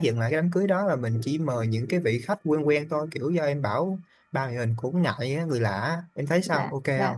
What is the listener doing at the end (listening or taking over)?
taking over